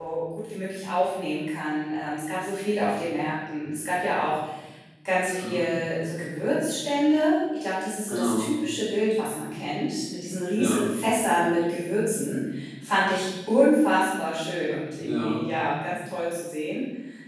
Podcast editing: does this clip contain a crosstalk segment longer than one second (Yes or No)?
No